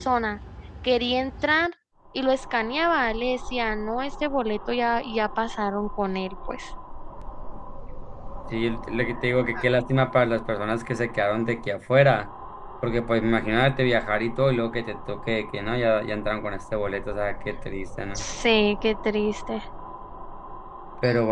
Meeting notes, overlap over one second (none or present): none